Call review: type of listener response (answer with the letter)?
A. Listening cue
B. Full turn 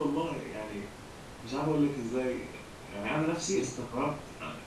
A